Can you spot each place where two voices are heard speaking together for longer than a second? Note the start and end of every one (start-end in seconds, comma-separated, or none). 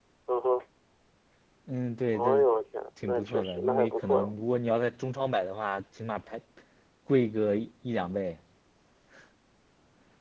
3.0-4.3